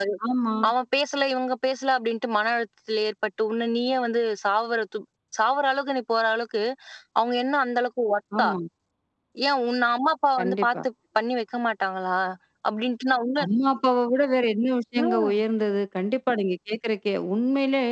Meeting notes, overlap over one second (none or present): none